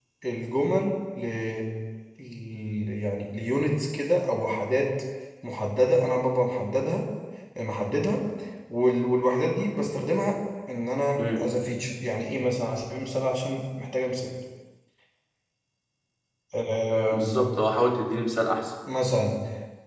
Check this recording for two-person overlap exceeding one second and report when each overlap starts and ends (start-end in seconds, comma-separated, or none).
none